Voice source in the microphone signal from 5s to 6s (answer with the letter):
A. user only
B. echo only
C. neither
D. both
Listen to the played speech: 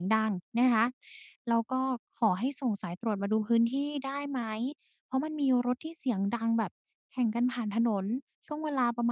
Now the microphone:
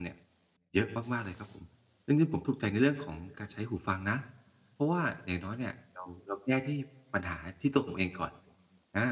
A